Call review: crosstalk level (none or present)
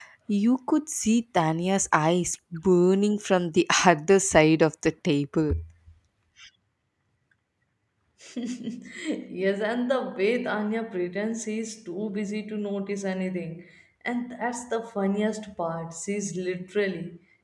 none